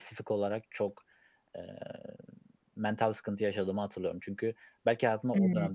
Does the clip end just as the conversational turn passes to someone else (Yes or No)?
No